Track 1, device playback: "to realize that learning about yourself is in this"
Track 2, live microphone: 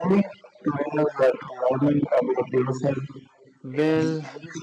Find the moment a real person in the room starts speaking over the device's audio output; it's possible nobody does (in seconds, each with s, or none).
3.6 s